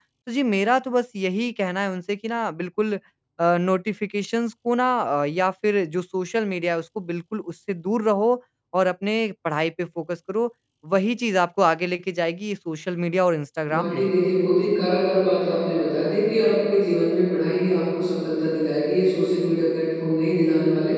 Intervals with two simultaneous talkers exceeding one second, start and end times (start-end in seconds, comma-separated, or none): none